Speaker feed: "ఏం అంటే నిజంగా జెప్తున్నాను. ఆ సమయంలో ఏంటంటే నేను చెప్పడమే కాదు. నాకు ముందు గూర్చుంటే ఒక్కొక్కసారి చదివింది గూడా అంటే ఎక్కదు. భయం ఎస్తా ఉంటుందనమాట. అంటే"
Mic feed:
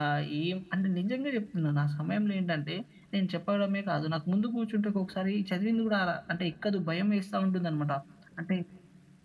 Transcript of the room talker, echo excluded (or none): none